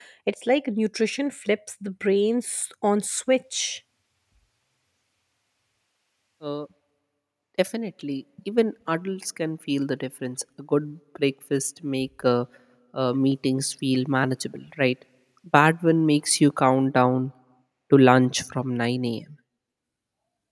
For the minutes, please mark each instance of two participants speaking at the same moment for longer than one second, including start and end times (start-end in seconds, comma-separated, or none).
none